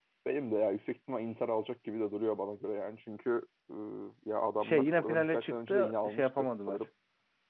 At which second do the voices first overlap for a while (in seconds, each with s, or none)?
4.6 s